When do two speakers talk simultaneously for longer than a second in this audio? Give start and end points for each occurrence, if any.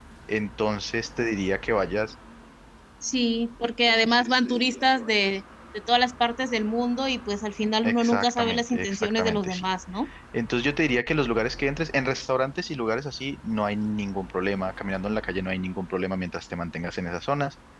7.8-9.7

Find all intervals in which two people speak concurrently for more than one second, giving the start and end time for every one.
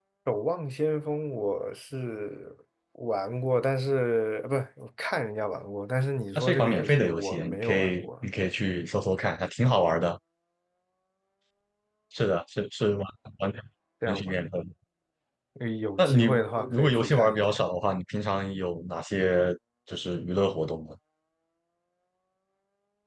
6.3-8.1, 16.0-17.6

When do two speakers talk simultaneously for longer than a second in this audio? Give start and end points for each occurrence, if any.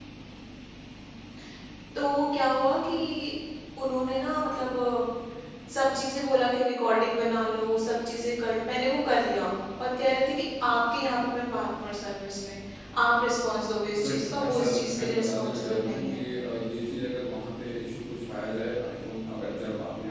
14.0-16.2

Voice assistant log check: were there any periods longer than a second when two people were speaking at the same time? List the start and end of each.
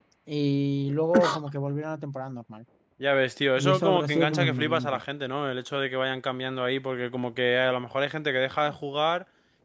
3.6-5.0

